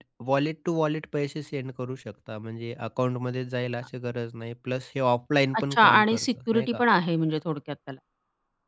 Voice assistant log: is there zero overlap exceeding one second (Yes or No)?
No